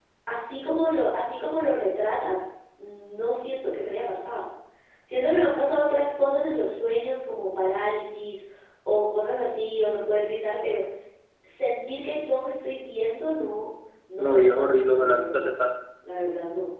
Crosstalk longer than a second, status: present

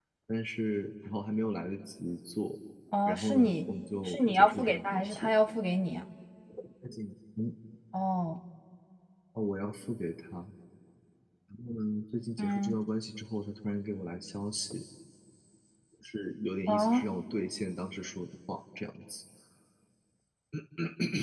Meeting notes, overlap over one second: present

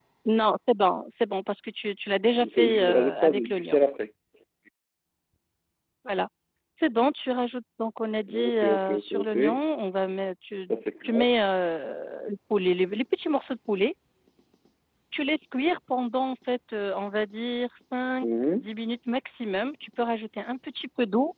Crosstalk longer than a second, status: present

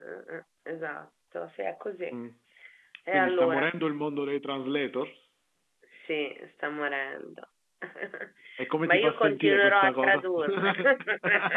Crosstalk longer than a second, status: present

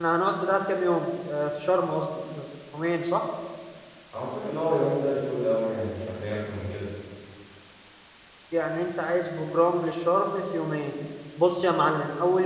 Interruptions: none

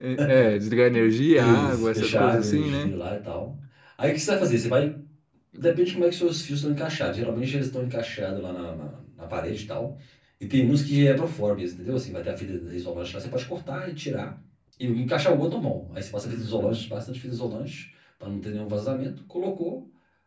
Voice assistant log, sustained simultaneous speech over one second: present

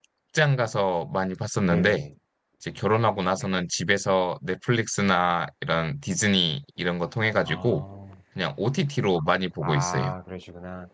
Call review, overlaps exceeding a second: none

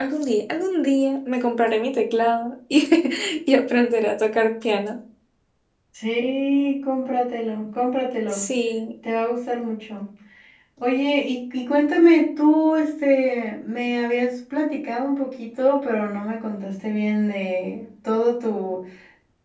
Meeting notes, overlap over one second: none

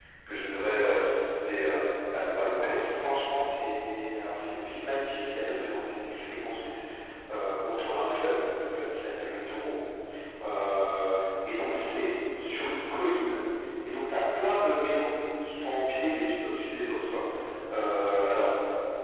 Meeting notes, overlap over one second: none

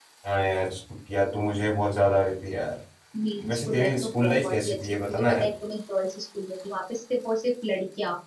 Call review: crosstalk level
present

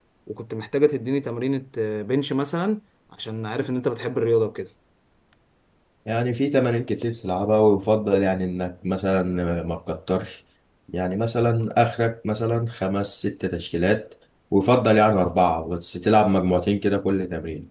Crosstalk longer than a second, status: none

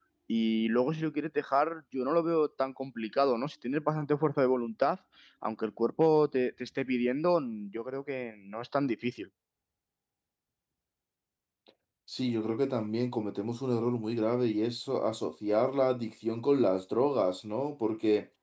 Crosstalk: none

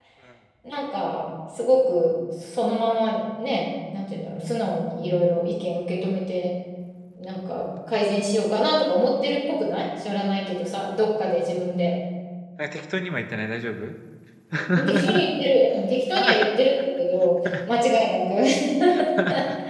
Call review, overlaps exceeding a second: none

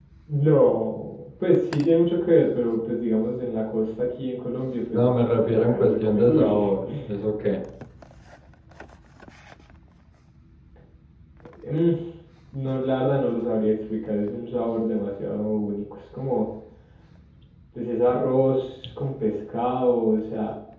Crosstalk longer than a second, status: present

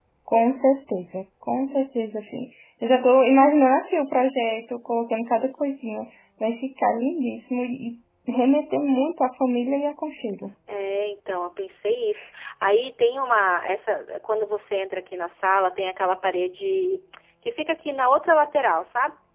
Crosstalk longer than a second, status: none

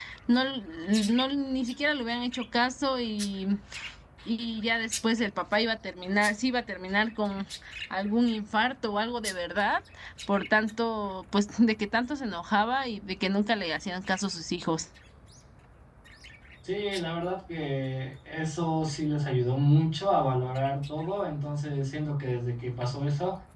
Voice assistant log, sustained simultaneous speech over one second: none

